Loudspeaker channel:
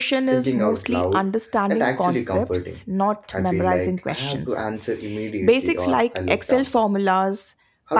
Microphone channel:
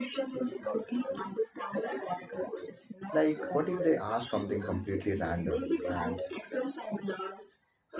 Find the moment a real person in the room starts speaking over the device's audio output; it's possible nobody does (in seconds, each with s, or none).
3.1 s